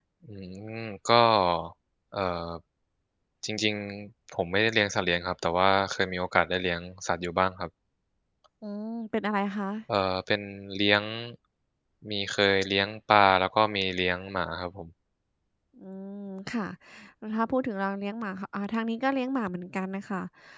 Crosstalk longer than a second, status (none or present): none